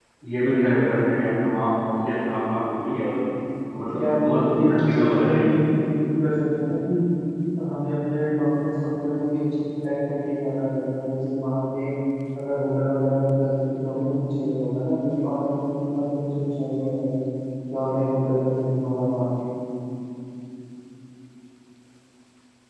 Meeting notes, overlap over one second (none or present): present